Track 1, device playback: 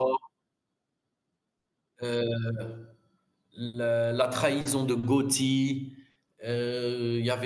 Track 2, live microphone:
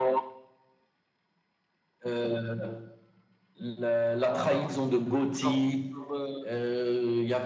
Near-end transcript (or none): Voilà, genre genre, heu